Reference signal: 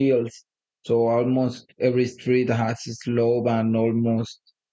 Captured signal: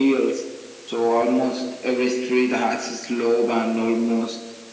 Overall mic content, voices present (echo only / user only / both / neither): echo only